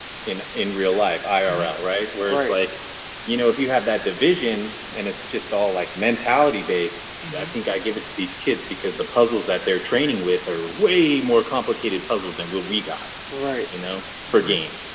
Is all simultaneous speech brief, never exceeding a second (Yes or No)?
Yes